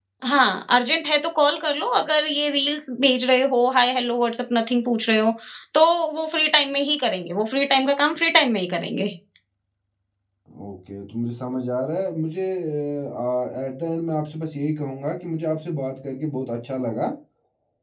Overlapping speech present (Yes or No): No